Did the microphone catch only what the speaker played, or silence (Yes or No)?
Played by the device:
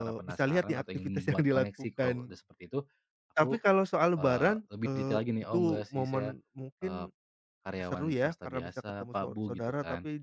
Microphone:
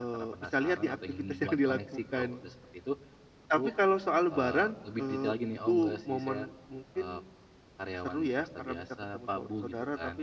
Yes